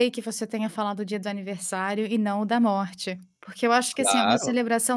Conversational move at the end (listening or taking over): listening